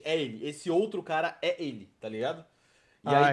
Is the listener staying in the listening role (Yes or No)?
Yes